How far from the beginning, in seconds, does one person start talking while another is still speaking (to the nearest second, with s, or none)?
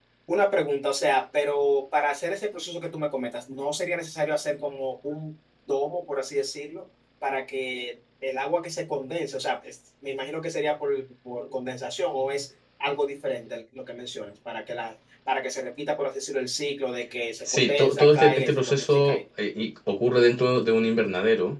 17 s